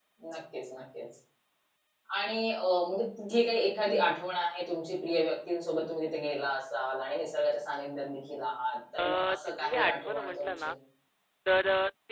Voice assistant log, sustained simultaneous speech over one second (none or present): present